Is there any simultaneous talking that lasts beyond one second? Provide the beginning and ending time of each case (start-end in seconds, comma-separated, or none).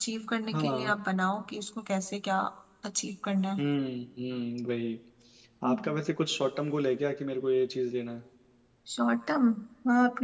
none